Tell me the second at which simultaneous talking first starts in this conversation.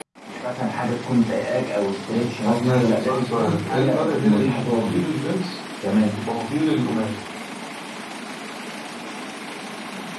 2 s

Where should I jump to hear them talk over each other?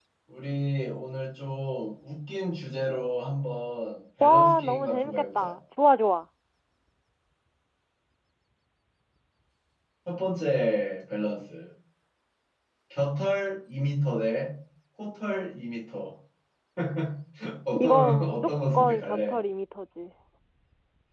4 s

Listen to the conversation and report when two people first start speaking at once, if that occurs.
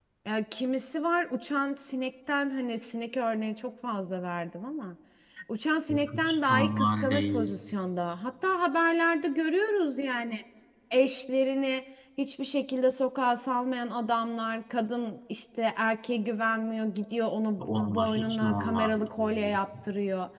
6 s

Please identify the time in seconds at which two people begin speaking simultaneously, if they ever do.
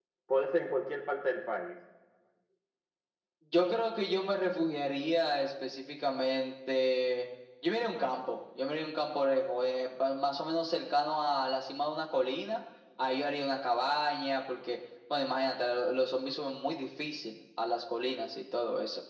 none

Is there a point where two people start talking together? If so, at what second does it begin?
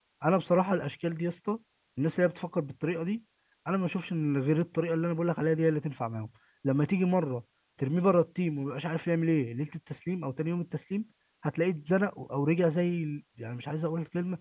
none

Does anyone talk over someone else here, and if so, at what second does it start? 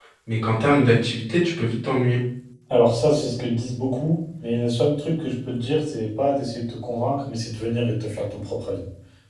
none

